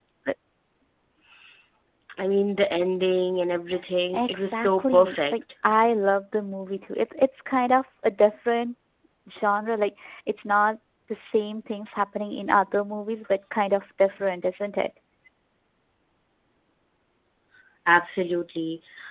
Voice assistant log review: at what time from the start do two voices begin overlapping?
4.1 s

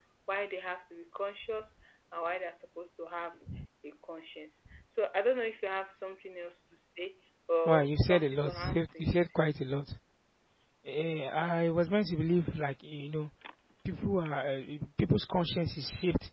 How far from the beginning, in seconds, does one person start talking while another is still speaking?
7.7 s

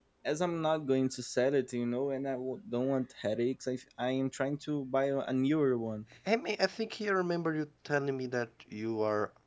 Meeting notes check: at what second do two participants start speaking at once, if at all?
none

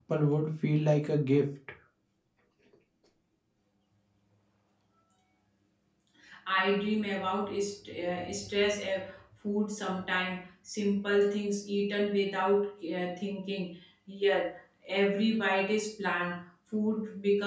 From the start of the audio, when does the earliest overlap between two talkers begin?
none

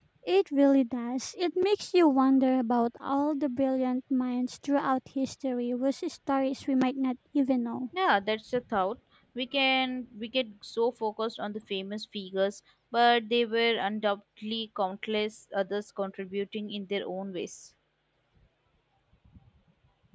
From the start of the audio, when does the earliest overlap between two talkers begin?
none

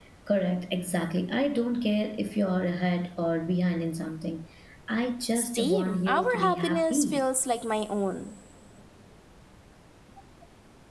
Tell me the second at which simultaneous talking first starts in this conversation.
5.3 s

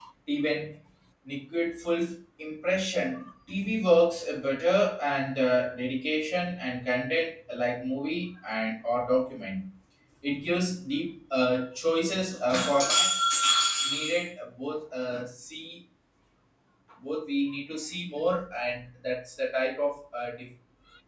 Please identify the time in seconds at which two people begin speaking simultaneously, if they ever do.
none

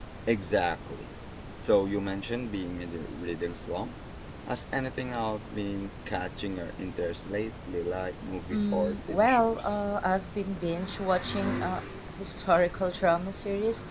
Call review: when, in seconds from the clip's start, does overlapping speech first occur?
8.5 s

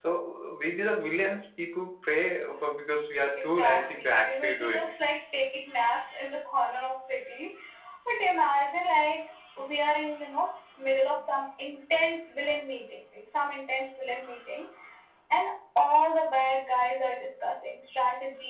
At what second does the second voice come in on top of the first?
3.4 s

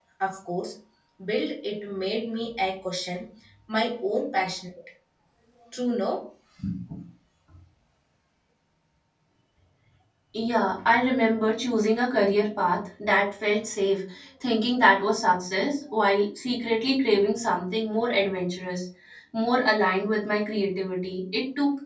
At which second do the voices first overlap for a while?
none

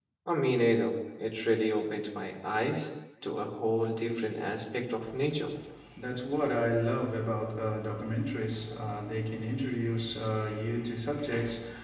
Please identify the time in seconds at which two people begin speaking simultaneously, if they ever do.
none

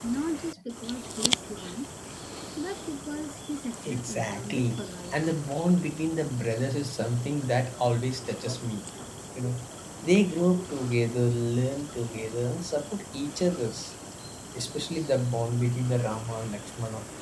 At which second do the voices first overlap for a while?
3.9 s

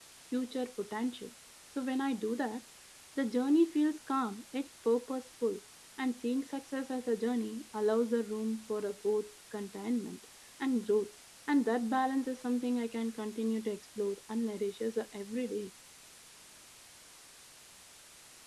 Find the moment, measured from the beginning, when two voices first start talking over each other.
none

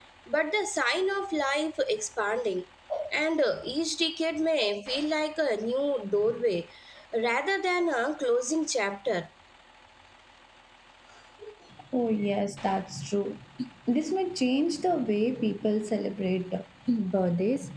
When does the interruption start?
none

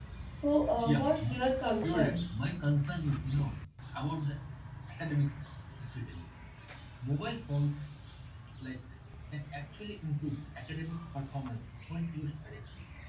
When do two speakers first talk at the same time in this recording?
0.8 s

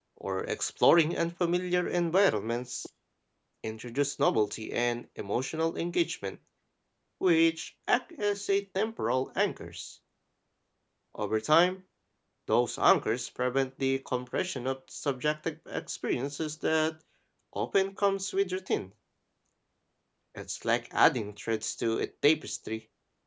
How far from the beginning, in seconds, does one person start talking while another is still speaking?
none

